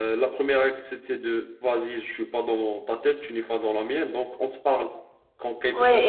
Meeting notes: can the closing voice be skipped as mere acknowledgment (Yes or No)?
No